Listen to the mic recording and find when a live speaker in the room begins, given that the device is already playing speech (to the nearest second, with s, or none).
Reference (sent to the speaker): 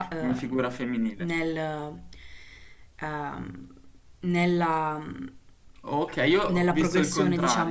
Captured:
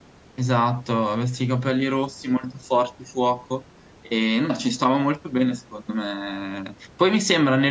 0 s